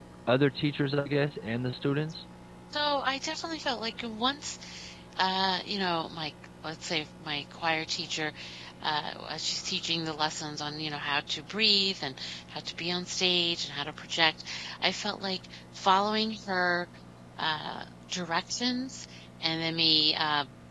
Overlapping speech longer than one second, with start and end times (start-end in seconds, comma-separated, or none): none